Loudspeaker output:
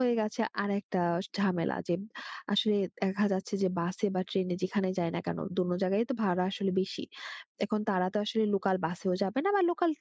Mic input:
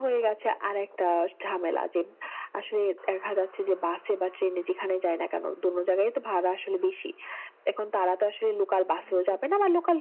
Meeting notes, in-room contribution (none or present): present